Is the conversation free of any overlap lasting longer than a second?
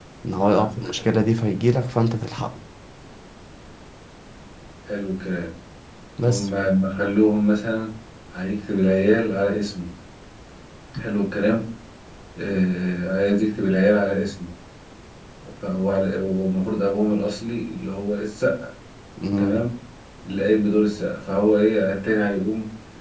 Yes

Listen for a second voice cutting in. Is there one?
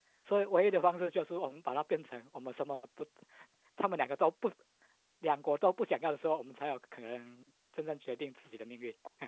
No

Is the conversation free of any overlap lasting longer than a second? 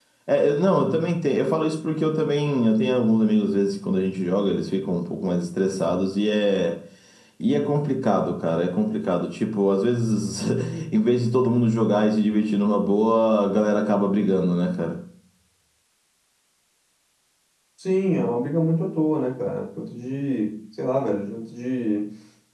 Yes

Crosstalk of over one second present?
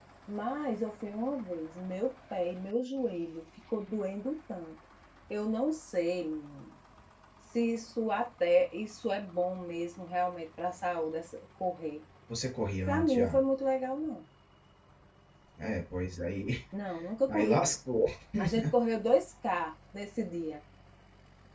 No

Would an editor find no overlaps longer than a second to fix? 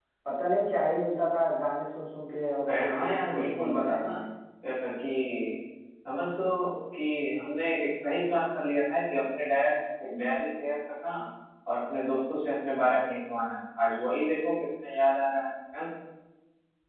No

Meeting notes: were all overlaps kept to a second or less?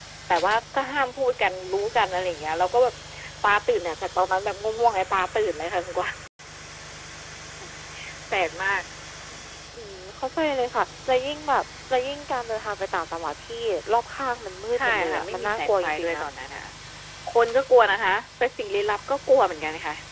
No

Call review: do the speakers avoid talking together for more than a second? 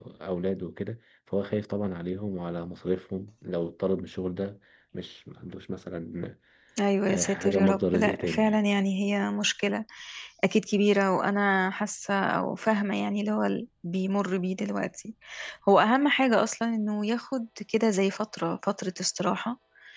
No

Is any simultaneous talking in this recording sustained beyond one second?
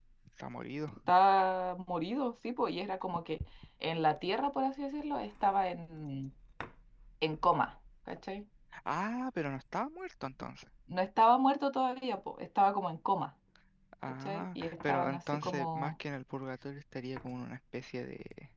Yes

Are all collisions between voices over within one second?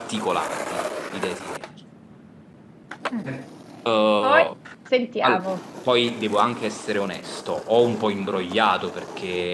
Yes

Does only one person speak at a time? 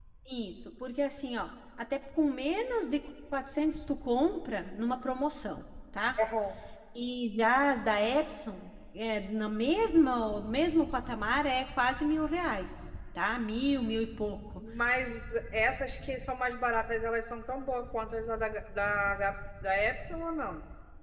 Yes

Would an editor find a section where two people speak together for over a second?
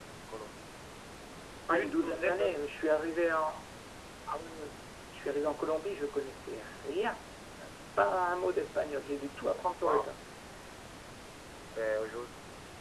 Yes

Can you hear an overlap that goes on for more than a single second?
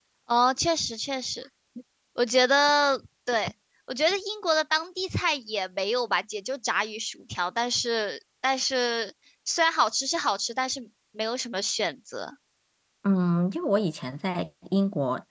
No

